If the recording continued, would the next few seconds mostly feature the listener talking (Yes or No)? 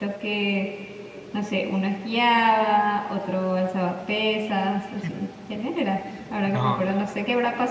No